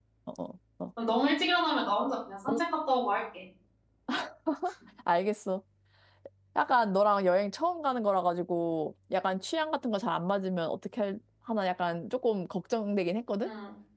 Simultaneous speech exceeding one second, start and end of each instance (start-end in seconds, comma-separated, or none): none